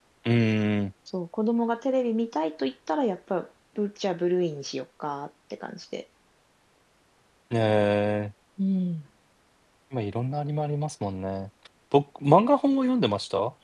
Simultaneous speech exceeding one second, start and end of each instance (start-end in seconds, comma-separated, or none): none